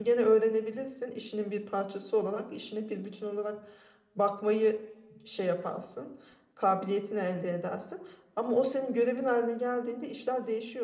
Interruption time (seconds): none

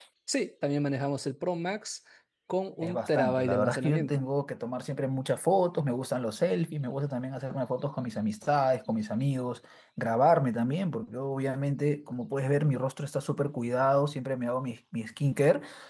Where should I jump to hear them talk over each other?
2.8 s

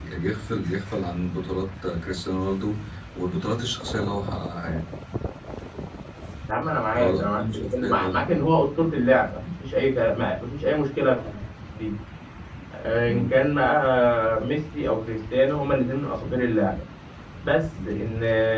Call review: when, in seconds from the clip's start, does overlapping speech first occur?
7.0 s

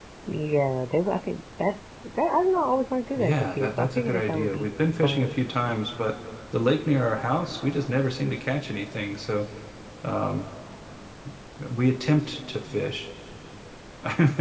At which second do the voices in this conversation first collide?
3.2 s

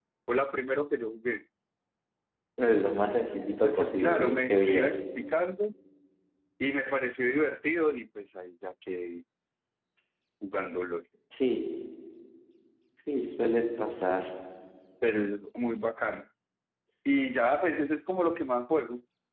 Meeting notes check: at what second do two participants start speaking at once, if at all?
3.3 s

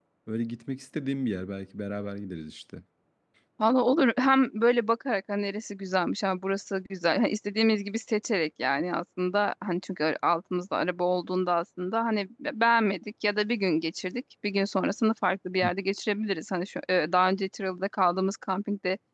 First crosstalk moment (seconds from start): none

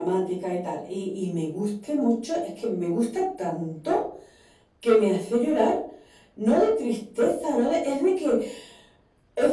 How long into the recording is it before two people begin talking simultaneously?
none

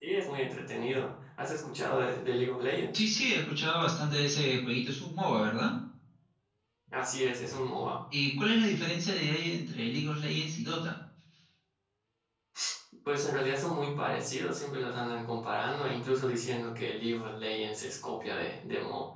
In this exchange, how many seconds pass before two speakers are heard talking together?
none

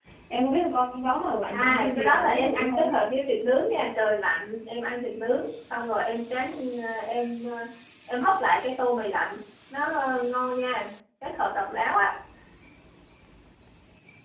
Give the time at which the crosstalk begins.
1.5 s

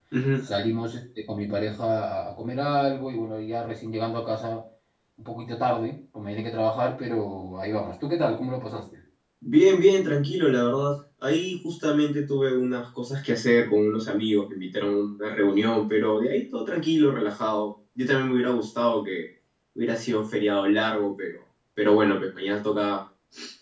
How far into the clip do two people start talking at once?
none

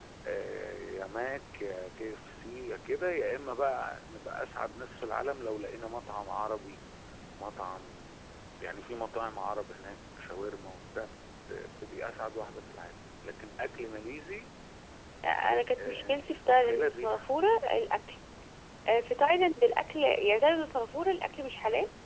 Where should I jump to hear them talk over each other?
15.9 s

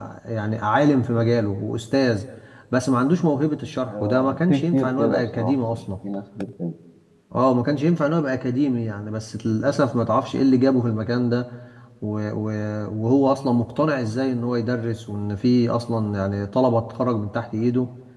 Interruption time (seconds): 3.9 s

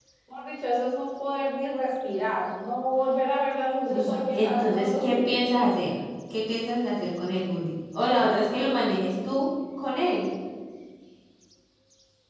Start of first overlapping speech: 3.9 s

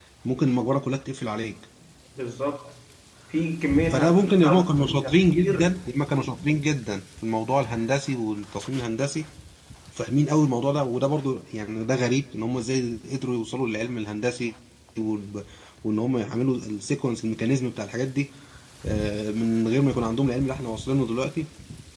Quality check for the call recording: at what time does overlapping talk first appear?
3.9 s

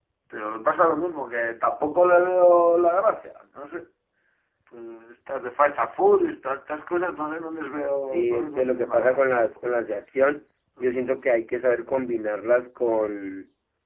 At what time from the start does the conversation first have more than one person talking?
8.1 s

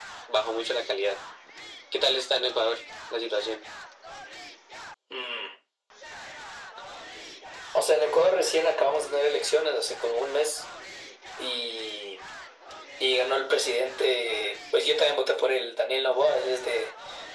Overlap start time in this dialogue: none

